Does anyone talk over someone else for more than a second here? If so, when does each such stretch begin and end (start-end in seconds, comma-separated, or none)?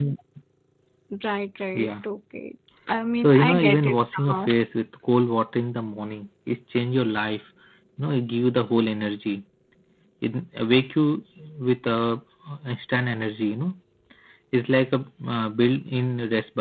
3.2-4.5